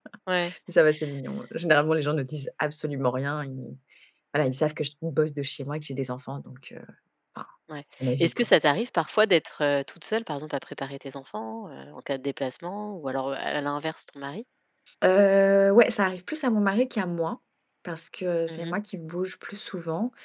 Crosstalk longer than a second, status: none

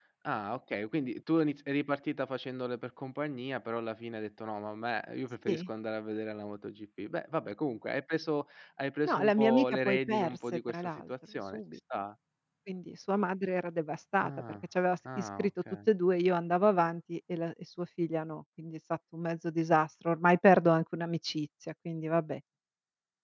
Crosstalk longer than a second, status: present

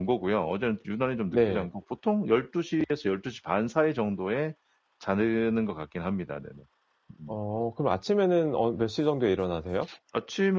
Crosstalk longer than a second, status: none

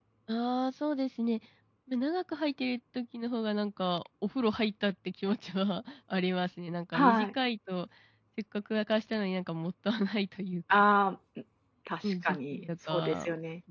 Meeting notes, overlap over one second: present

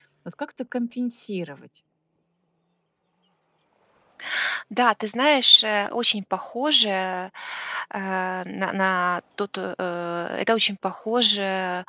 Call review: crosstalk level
none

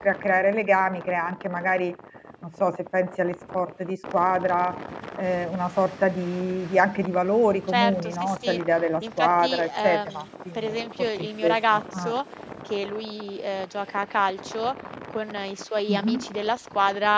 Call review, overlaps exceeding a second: present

